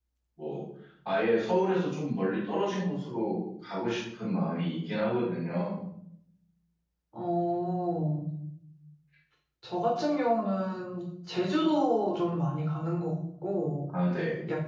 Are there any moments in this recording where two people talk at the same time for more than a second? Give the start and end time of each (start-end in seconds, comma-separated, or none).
none